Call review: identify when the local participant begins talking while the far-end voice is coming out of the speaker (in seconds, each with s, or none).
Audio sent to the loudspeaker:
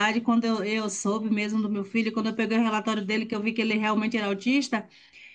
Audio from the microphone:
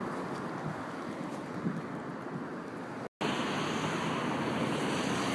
none